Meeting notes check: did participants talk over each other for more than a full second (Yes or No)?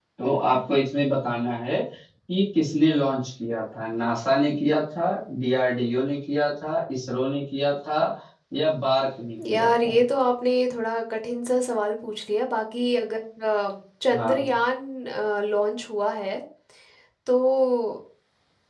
No